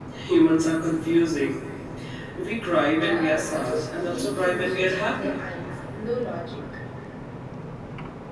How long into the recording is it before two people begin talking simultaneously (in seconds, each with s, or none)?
2.9 s